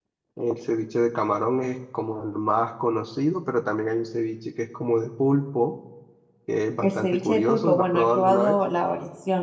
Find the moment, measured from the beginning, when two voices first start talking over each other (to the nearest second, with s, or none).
7 s